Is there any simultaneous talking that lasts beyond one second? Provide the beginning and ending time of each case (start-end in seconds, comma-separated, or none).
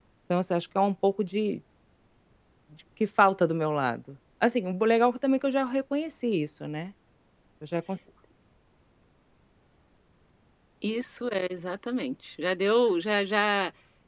none